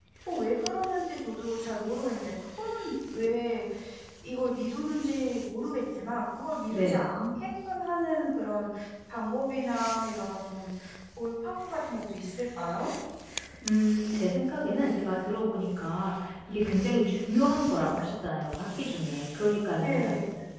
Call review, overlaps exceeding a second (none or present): none